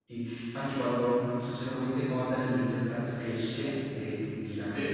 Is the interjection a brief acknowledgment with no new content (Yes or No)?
Yes